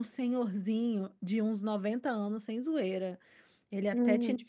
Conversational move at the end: listening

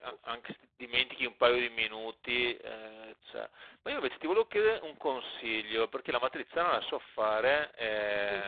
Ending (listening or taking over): listening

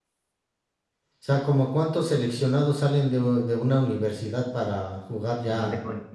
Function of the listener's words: taking over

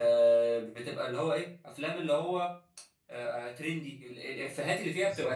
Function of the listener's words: listening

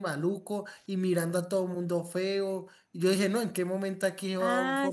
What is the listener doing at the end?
taking over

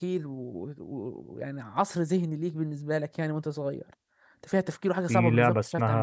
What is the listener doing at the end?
taking over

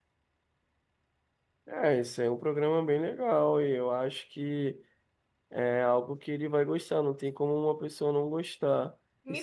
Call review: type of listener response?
taking over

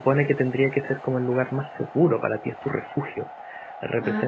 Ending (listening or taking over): listening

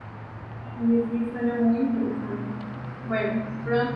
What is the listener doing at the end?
listening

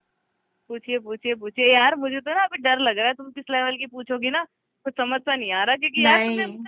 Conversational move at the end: listening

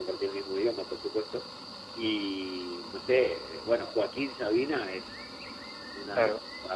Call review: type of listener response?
listening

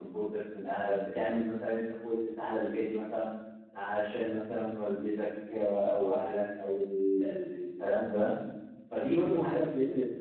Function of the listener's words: listening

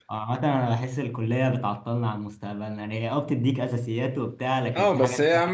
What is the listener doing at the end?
taking over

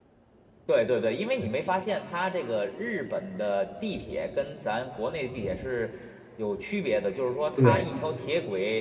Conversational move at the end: listening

